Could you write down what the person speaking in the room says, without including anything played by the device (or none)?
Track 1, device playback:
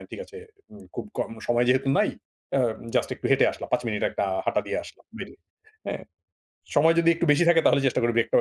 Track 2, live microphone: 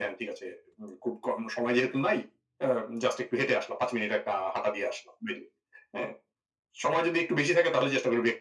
none